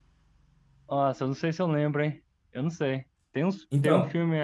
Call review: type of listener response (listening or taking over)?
listening